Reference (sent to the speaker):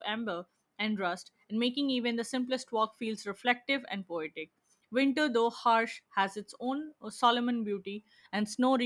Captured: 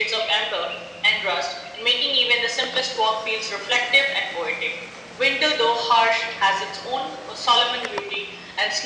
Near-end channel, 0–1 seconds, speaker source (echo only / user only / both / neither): echo only